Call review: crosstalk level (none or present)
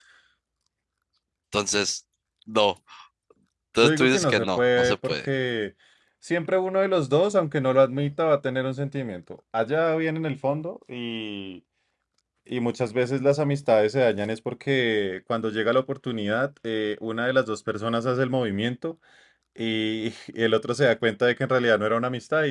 present